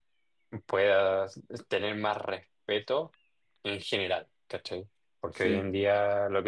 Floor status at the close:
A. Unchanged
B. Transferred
A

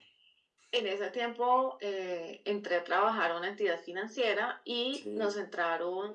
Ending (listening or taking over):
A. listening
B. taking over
A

